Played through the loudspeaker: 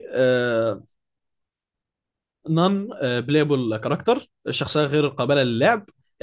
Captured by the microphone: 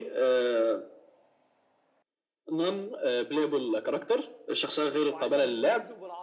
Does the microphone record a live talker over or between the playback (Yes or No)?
Yes